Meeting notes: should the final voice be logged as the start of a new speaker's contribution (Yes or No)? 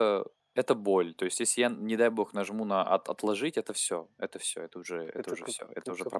Yes